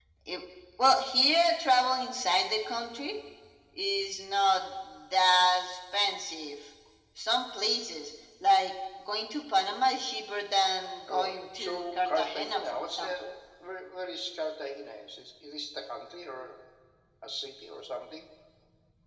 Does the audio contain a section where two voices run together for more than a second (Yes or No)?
Yes